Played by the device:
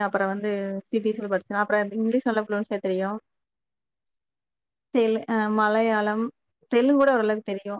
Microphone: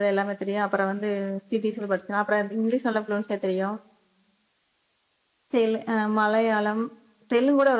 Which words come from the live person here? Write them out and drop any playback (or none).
none